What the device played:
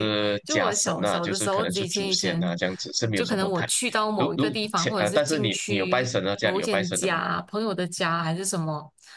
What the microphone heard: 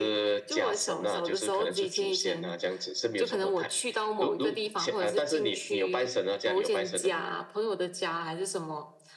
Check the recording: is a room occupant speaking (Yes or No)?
No